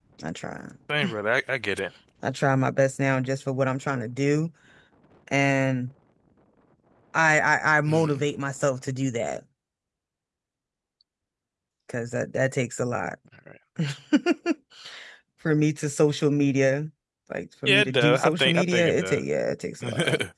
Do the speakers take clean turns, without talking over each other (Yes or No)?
No